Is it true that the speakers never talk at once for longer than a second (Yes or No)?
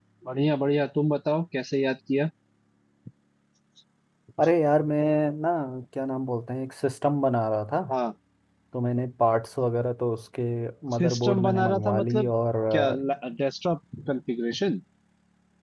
No